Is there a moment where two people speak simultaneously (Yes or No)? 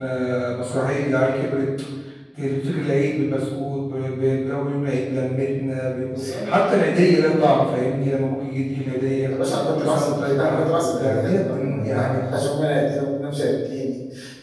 Yes